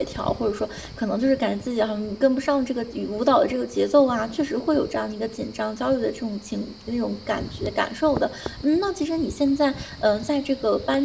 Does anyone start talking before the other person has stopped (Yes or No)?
No